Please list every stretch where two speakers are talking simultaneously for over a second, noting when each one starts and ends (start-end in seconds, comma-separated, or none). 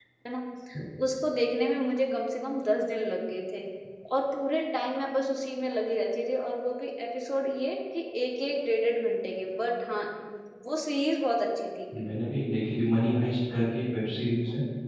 none